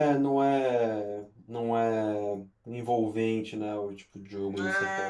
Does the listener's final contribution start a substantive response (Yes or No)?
Yes